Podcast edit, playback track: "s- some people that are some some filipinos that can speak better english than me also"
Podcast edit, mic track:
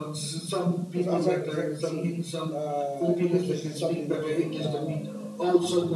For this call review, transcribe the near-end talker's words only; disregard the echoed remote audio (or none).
as, as, I, as I can see, uh, English is something that you can uh,